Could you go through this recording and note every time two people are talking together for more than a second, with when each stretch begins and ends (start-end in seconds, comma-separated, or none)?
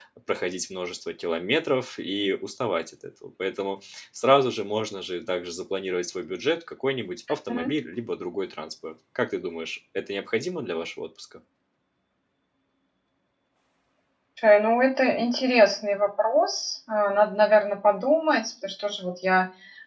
none